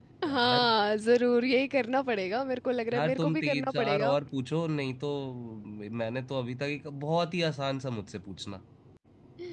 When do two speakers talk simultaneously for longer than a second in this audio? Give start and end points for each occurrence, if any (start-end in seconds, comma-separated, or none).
2.9-4.1